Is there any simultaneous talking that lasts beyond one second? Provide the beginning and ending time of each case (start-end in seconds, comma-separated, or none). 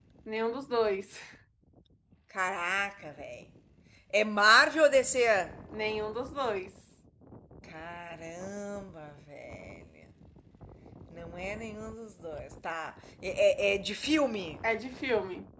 none